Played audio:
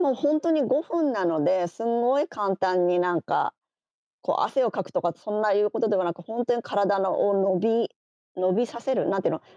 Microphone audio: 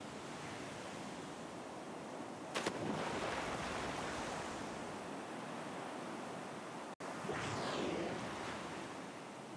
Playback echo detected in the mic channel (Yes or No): No